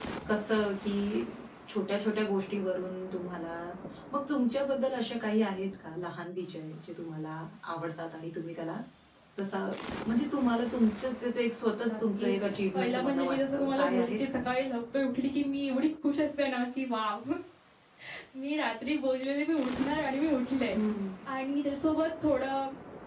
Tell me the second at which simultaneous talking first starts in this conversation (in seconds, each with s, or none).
11.8 s